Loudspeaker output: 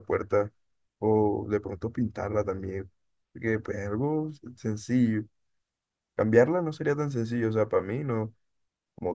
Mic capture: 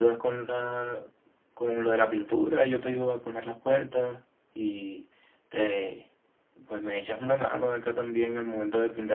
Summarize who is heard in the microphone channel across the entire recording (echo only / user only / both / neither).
user only